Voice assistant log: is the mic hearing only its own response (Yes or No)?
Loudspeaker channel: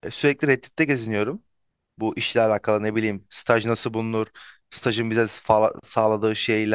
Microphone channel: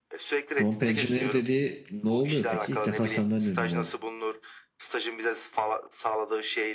No